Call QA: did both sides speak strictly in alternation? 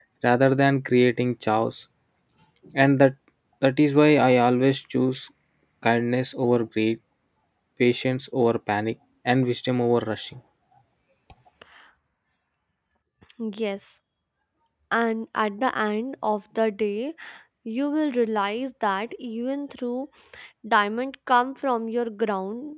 Yes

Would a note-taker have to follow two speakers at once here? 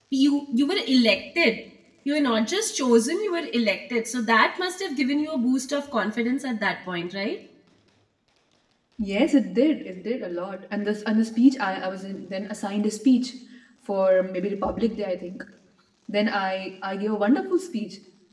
No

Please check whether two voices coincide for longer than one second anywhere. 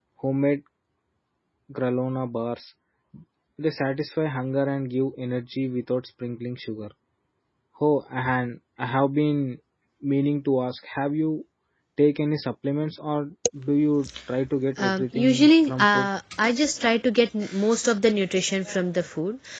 Yes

